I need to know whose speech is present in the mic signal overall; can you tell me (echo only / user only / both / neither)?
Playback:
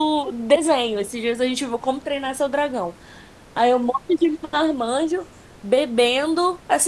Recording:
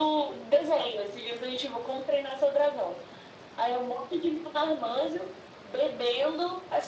echo only